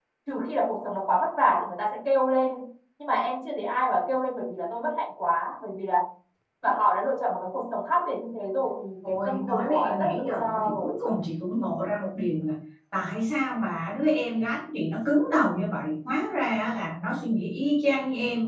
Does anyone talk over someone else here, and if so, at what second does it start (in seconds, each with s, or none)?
9.0 s